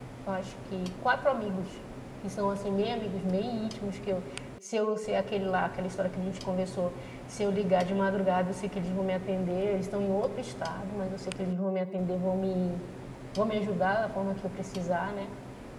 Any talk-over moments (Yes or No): No